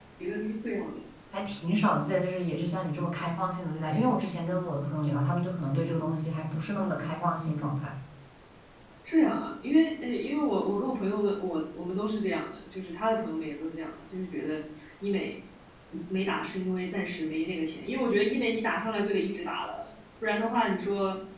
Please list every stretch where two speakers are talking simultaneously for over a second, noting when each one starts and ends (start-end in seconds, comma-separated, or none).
none